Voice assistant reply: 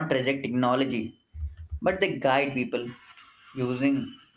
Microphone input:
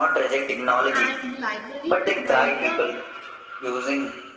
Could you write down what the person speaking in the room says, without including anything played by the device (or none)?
And library provide the